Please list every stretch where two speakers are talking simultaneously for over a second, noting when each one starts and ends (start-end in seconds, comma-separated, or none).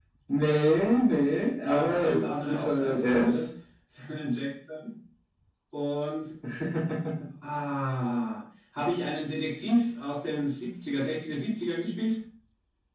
1.6-3.4